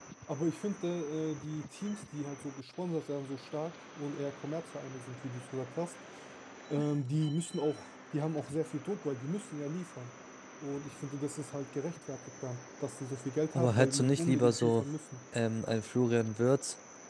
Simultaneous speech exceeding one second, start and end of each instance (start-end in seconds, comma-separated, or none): 13.5-14.8